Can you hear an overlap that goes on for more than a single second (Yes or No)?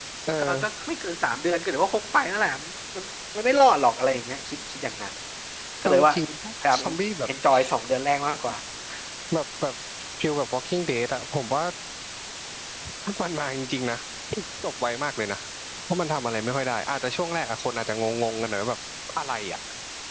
No